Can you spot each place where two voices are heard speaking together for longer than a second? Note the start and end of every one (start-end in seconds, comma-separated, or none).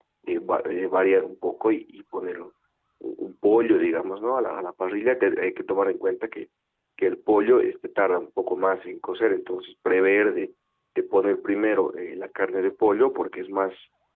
none